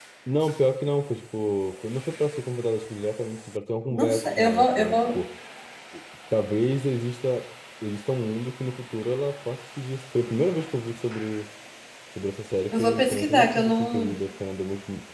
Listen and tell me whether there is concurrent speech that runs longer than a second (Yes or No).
Yes